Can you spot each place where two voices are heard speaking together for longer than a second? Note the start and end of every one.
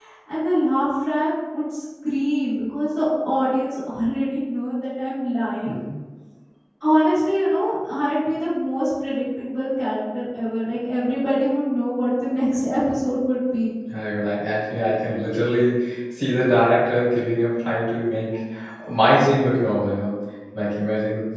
none

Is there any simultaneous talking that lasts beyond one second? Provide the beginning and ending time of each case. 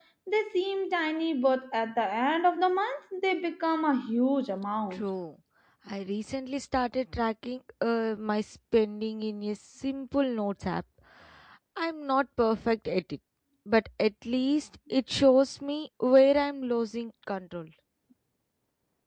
none

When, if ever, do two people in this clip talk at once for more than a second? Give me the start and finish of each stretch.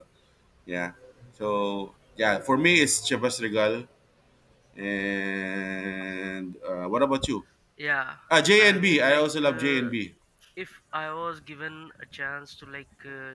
8.6-9.9

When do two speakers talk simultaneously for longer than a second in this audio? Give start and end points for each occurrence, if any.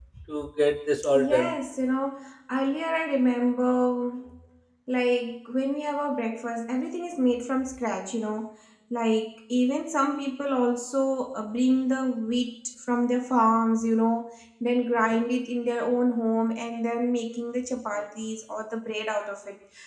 none

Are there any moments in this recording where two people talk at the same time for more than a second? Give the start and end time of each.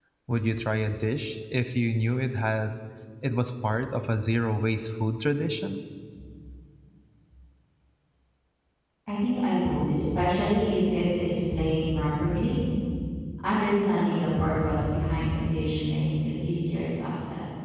none

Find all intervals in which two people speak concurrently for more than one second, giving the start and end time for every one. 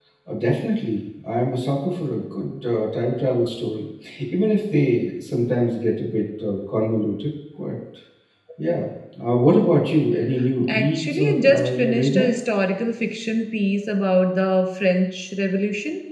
10.7-12.3

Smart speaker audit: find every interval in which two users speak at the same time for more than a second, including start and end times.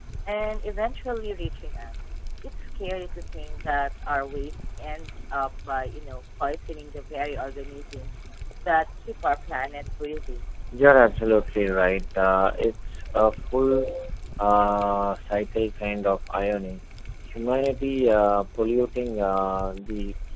none

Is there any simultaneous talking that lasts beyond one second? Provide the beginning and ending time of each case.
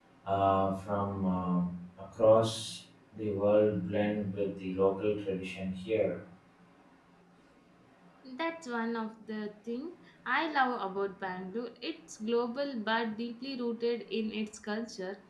none

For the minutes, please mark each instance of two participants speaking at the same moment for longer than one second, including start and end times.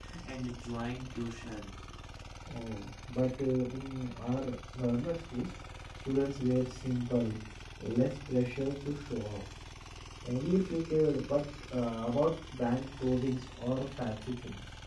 none

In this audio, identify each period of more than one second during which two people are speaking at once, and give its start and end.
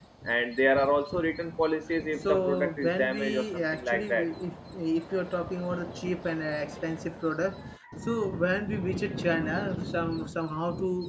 2.3-4.3

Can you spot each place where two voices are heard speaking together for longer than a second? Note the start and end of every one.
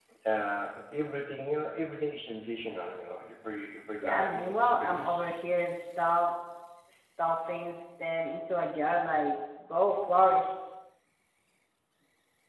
4.0-5.3

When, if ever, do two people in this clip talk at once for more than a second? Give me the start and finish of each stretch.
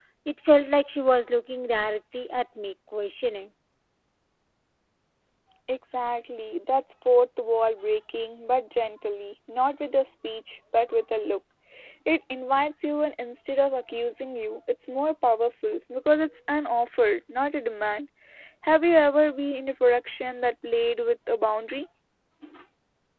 none

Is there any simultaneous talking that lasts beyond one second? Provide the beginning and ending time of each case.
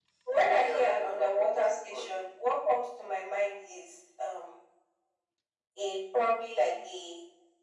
0.6-2.1

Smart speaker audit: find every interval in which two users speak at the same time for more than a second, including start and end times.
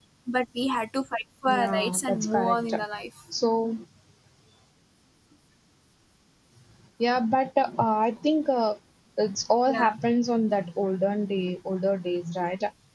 1.5-2.7

